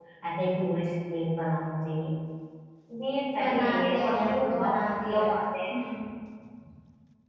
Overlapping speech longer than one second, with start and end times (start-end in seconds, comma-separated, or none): 3.4-5.3